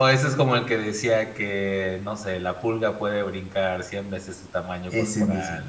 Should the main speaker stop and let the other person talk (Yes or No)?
No